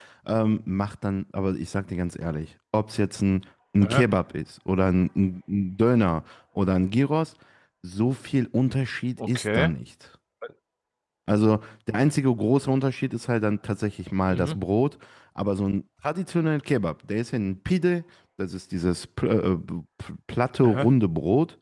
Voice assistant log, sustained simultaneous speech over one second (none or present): none